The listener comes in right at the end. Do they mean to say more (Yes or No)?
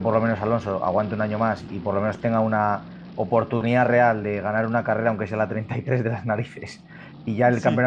No